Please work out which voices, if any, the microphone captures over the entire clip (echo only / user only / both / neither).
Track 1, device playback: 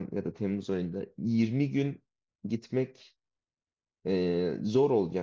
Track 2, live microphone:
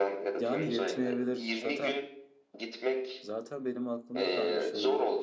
both